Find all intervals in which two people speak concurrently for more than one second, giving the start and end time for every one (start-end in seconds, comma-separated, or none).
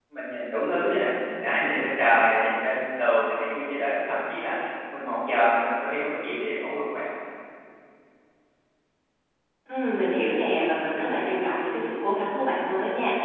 none